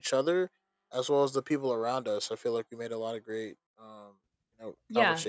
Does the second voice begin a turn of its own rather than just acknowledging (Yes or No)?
Yes